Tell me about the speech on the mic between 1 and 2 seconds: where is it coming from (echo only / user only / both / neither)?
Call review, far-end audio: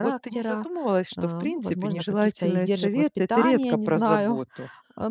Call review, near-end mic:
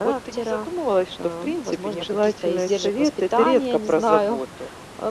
echo only